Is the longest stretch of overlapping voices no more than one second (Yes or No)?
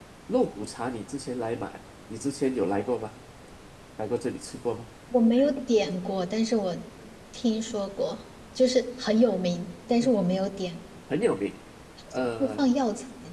Yes